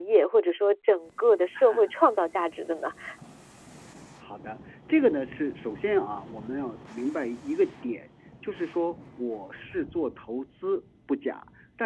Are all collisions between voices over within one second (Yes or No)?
Yes